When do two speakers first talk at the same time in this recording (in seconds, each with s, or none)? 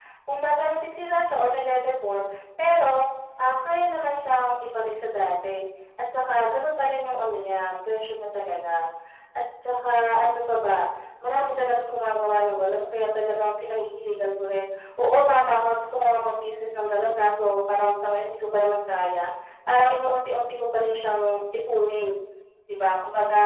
none